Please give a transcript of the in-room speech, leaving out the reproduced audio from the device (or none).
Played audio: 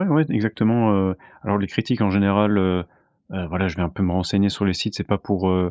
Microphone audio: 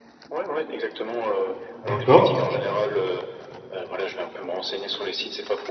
d'accord,